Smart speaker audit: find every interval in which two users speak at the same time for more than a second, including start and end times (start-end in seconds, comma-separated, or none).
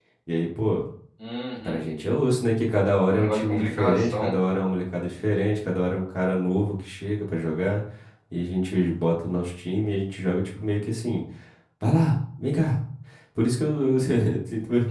3.1-4.4